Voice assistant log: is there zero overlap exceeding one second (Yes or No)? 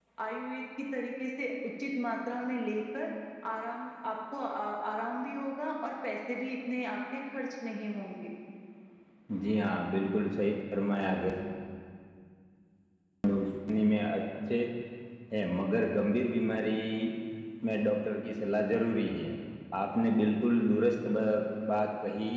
Yes